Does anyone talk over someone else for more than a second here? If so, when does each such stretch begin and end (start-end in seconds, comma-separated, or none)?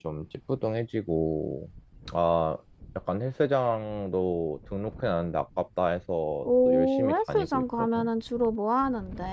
6.4-8.1